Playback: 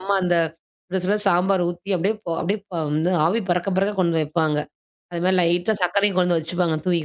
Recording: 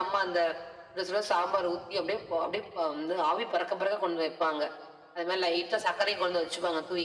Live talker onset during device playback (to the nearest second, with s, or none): none